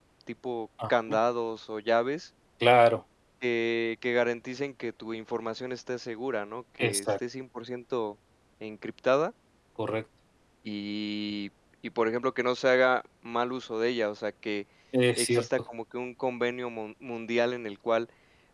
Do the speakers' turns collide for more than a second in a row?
No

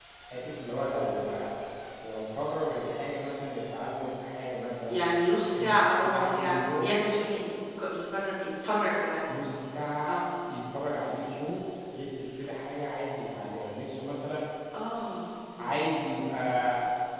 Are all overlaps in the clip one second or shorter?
No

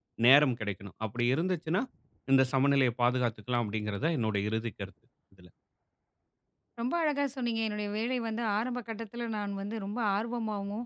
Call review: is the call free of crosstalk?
Yes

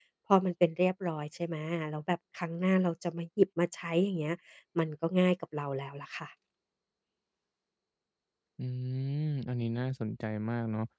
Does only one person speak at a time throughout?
Yes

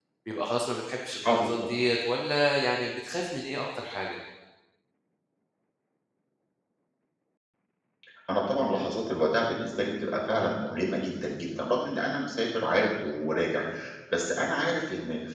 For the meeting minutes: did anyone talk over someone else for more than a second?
No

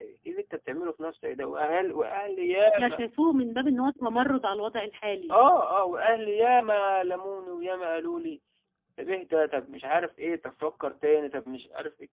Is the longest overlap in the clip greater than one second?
No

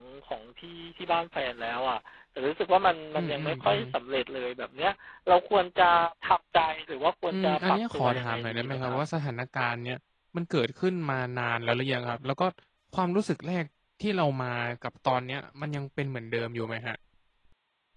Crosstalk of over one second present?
Yes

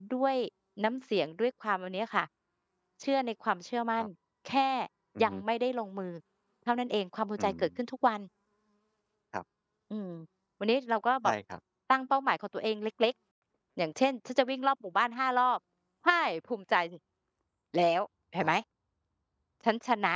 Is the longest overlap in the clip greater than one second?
No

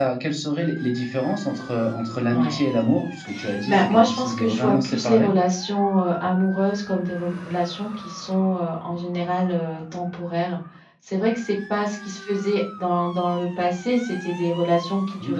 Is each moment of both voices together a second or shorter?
No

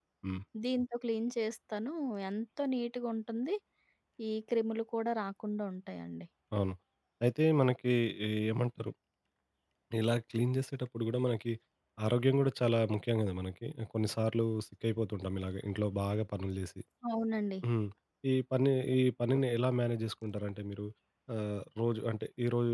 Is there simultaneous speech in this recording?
No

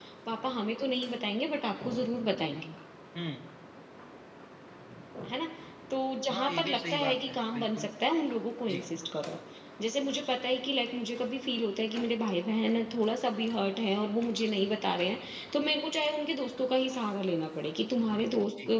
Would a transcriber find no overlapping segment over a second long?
No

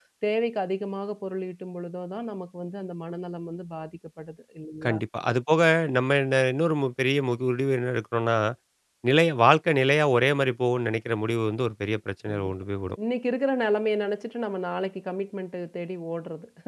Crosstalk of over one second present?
No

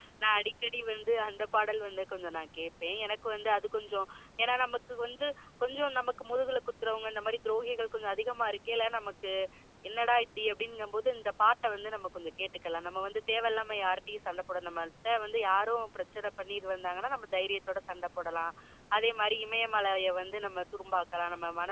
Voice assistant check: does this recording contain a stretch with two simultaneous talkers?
No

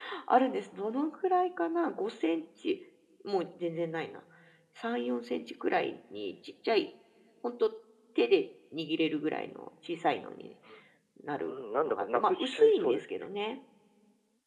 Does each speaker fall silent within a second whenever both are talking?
No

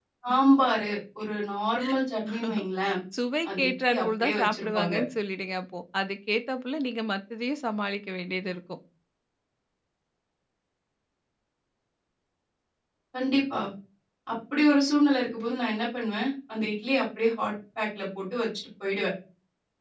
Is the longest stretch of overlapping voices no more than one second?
No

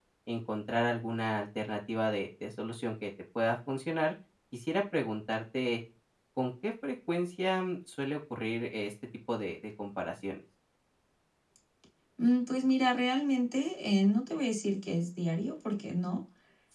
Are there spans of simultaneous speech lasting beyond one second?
No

